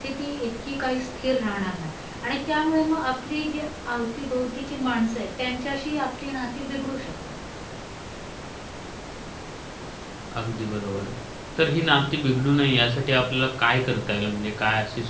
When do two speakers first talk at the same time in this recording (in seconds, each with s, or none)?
none